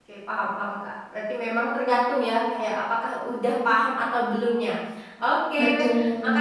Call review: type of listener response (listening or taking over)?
listening